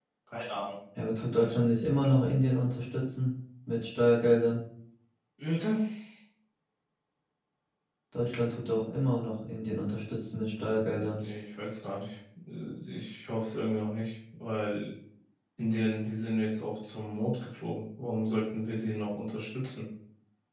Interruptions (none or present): none